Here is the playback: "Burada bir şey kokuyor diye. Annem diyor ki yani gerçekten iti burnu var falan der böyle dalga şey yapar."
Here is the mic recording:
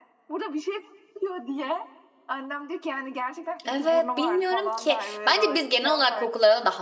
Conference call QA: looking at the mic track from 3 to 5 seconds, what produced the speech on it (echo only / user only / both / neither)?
both